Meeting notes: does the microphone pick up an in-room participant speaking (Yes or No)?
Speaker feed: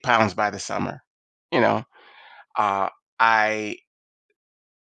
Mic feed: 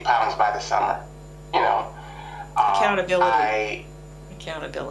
Yes